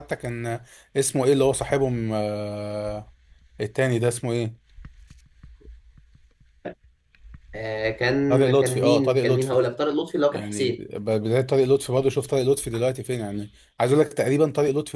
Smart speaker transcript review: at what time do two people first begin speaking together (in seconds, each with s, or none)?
8.3 s